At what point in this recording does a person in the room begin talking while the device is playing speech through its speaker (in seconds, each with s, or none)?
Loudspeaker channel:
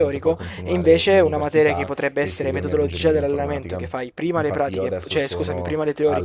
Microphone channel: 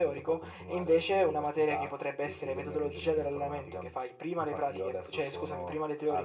none